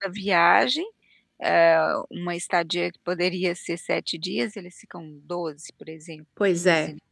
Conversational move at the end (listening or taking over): taking over